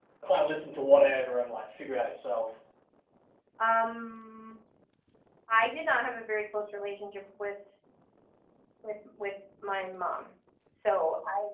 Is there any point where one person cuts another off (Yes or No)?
No